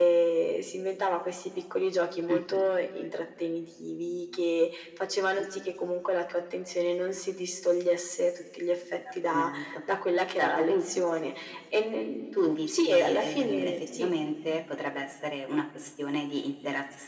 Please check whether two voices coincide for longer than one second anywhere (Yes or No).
Yes